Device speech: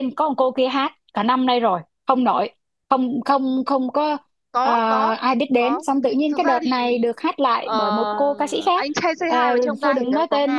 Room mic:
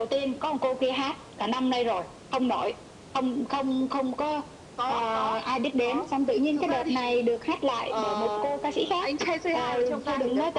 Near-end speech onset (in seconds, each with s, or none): none